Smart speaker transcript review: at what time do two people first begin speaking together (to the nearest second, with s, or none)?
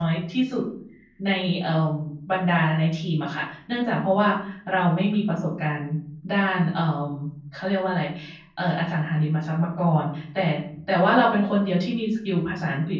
none